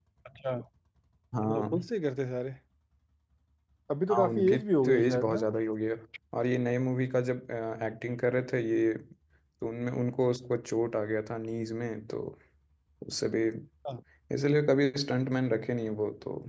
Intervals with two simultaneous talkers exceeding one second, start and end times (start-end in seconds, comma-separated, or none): 4.1-5.4